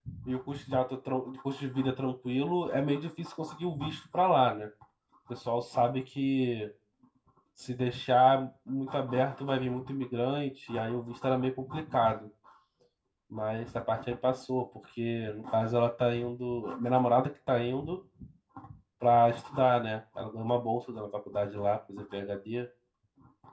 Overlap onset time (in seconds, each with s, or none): none